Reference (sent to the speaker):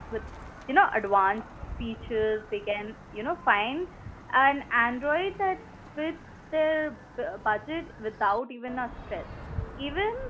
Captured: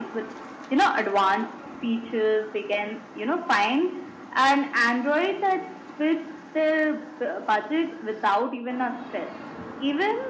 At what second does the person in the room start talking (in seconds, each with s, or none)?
none